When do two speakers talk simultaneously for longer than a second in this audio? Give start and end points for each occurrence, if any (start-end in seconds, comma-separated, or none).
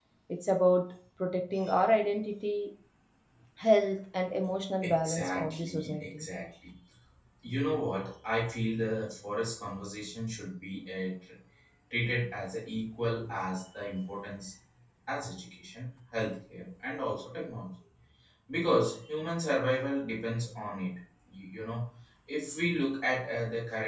4.8-6.2